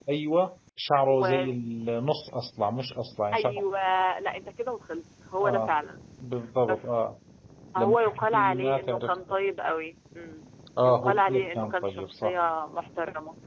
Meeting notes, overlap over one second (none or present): present